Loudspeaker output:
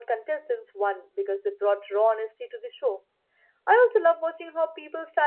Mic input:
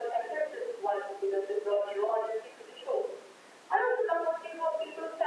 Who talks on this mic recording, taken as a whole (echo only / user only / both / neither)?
echo only